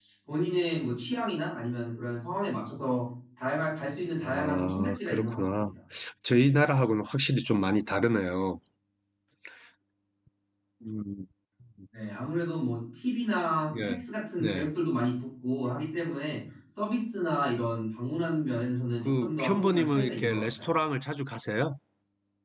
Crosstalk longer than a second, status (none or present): present